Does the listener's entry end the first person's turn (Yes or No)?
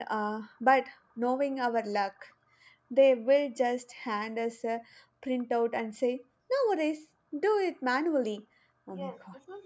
Yes